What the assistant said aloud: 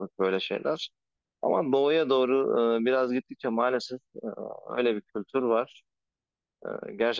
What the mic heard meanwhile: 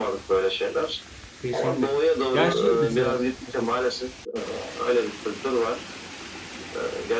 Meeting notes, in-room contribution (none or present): present